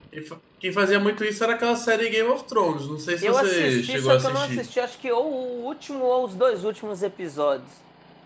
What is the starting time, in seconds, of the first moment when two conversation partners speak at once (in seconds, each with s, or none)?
3.2 s